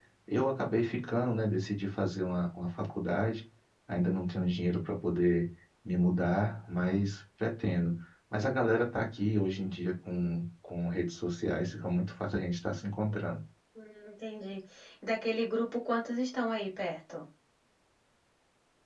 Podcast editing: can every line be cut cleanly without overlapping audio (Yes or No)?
Yes